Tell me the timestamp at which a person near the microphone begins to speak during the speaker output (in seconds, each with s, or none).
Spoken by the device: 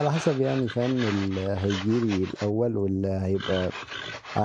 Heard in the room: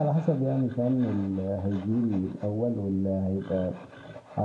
none